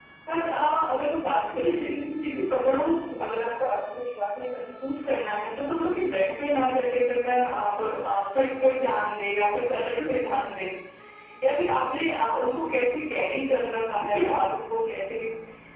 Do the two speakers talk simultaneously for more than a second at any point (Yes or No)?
No